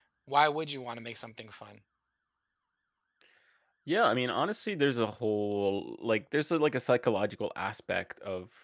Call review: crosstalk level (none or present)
none